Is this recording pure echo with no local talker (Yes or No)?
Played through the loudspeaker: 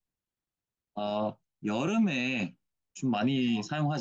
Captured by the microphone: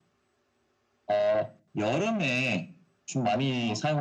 Yes